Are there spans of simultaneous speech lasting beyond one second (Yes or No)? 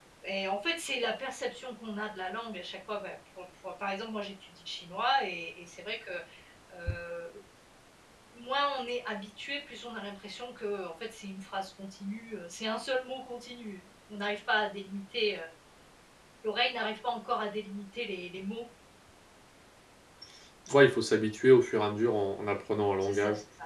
No